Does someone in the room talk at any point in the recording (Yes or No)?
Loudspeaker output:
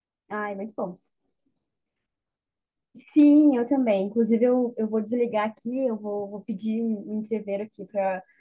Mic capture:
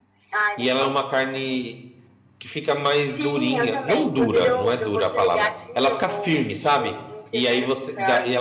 Yes